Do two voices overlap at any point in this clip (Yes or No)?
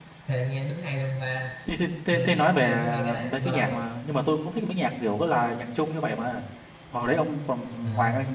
Yes